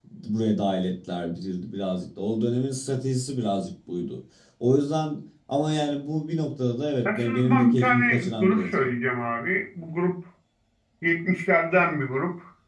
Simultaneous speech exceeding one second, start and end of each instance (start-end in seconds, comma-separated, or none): 7.0-8.9